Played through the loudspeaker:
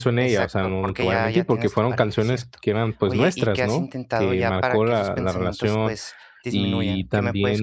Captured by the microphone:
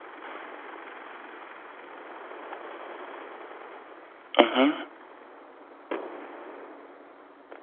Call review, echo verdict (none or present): none